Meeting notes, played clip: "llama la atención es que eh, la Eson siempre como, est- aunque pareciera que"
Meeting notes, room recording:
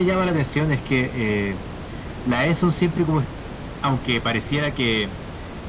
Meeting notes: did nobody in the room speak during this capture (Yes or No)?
Yes